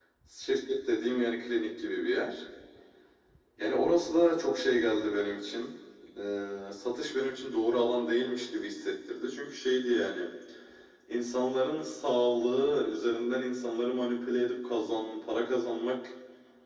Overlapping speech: No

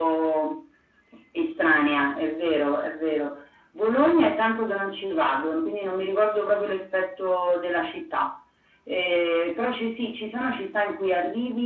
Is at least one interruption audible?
No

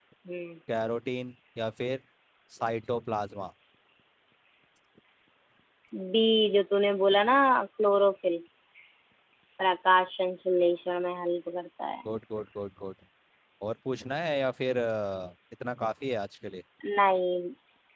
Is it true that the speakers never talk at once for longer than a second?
Yes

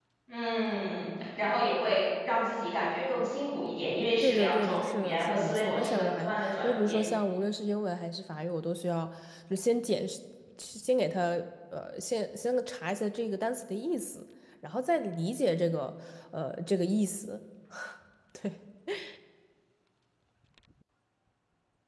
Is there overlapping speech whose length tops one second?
Yes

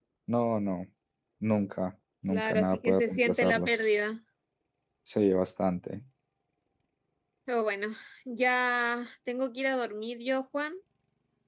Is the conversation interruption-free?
No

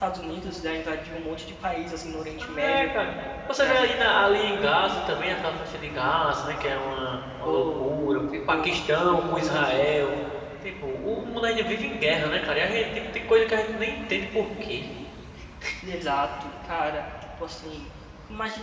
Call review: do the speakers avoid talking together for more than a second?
Yes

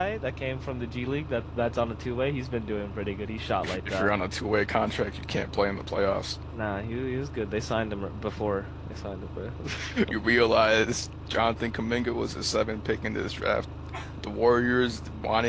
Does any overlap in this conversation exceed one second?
No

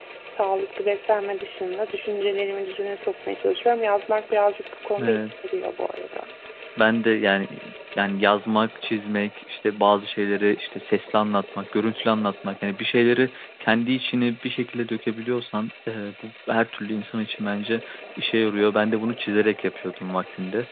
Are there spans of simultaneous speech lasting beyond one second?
No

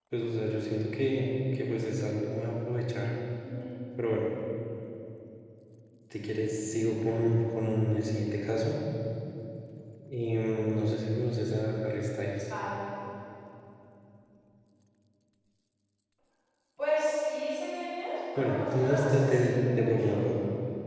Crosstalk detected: Yes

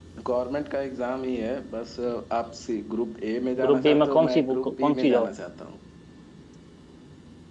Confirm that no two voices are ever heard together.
No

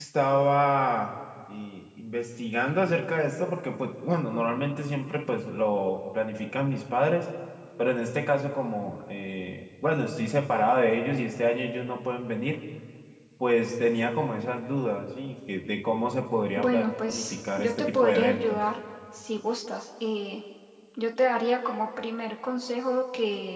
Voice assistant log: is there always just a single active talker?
No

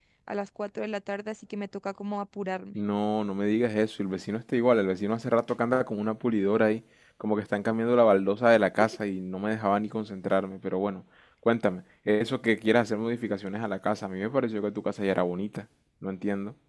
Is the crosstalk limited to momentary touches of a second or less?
Yes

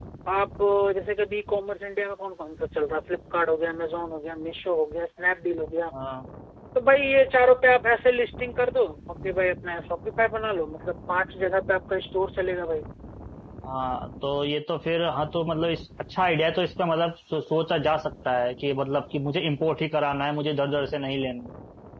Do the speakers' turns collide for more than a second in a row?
No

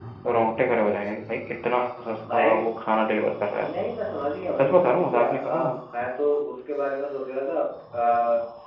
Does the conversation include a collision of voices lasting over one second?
Yes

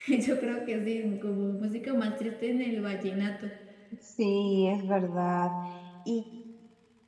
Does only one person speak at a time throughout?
Yes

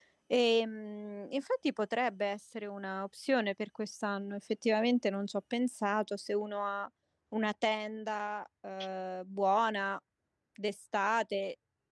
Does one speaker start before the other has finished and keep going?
No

